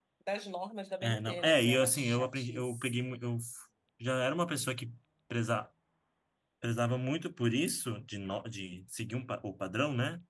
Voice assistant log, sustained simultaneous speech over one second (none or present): present